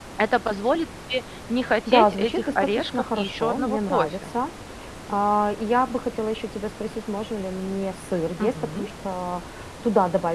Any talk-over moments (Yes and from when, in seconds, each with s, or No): Yes, from 1.9 s